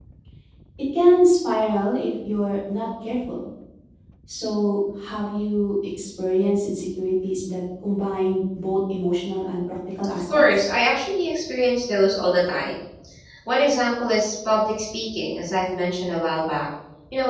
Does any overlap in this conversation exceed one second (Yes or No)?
No